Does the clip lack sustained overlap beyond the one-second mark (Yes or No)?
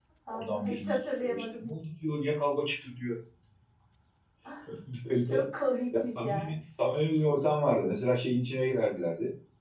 No